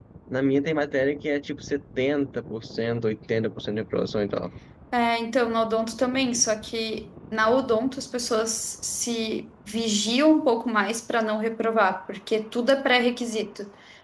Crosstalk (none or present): none